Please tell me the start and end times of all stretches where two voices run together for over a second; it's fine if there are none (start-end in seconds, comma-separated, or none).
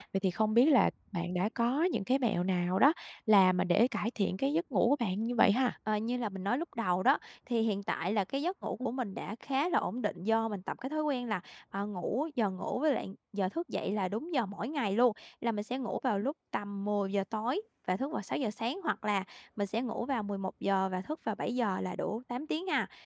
none